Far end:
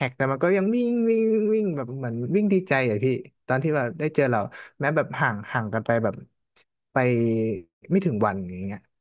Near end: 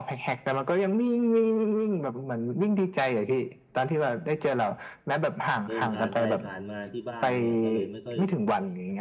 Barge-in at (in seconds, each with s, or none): 5.6 s